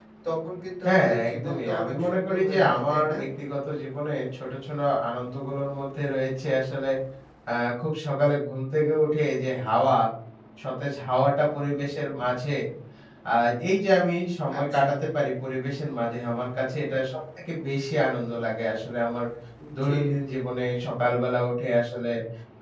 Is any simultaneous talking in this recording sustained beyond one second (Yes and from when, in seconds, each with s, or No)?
Yes, from 0.8 s